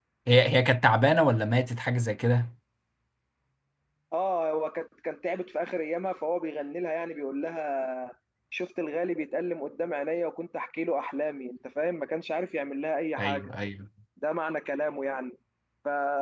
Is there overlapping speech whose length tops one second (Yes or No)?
No